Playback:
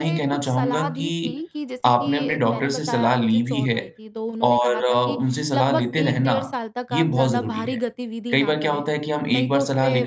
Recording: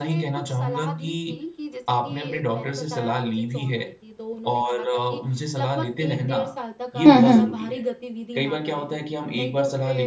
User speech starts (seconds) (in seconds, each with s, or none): 7.0 s